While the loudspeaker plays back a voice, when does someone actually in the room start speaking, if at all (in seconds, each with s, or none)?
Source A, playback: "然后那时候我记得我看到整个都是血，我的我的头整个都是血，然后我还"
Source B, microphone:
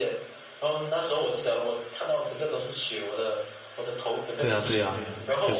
4.4 s